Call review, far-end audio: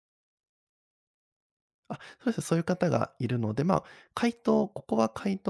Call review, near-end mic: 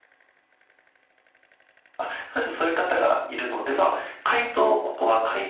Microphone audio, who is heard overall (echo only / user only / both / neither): echo only